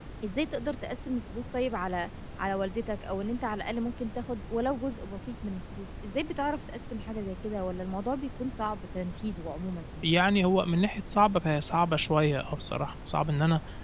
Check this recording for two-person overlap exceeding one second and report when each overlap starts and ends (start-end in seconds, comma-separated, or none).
none